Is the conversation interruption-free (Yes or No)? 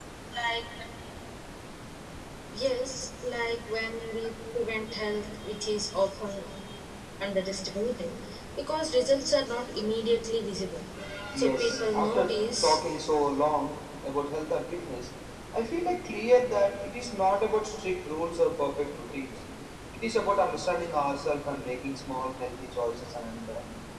No